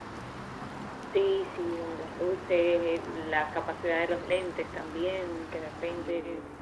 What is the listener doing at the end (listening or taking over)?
listening